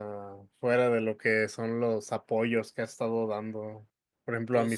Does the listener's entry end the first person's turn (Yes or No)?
No